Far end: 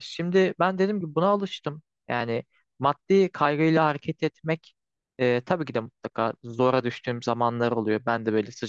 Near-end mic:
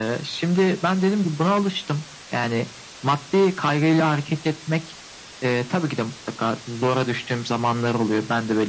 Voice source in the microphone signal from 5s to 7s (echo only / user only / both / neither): echo only